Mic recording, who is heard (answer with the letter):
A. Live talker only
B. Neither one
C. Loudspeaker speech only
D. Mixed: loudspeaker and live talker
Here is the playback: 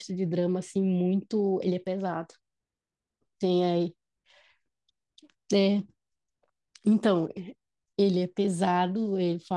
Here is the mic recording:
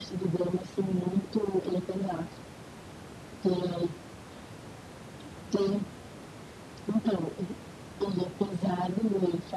C